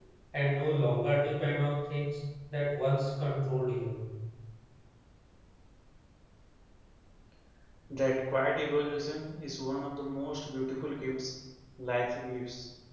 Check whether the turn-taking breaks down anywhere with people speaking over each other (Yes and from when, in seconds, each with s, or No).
No